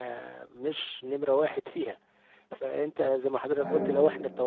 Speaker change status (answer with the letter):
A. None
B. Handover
A